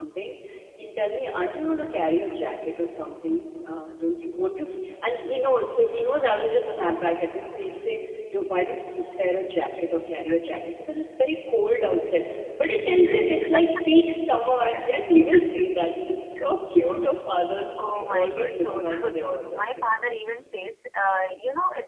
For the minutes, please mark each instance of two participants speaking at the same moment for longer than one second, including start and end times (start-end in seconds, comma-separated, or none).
17.8-20.0